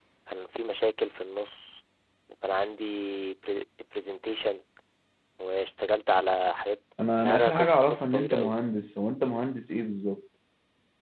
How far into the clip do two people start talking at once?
7.0 s

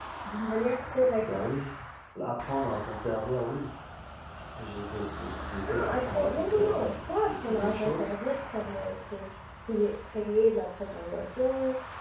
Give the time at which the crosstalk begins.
5.7 s

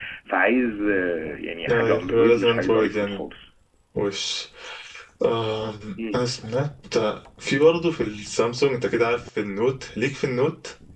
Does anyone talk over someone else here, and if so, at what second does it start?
1.7 s

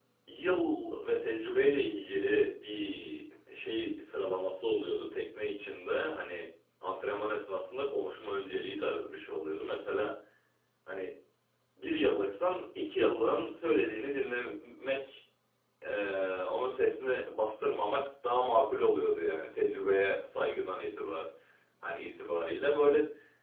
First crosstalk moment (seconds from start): none

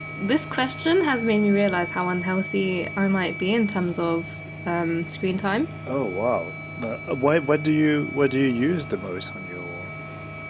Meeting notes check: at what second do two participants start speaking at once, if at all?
none

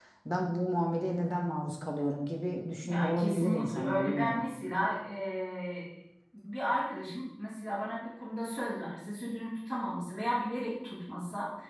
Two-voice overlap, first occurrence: 2.8 s

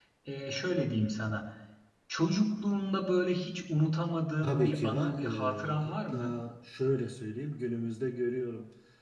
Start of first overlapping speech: 4.4 s

